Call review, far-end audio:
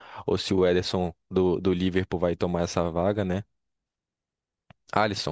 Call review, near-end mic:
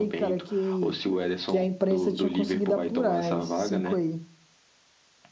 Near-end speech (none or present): present